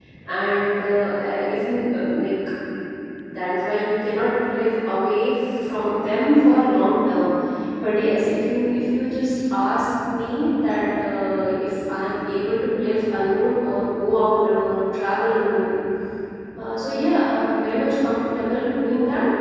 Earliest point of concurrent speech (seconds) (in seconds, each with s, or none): none